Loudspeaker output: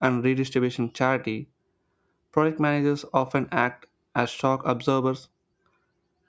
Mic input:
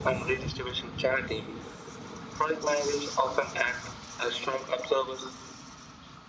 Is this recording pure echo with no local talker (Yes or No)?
Yes